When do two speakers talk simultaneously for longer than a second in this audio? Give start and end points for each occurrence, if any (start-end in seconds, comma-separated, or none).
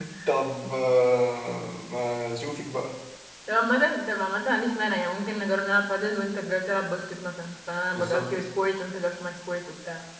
none